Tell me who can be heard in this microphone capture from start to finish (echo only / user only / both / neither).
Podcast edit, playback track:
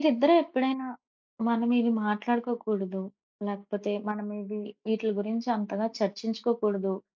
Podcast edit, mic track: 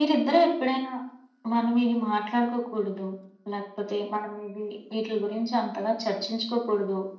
echo only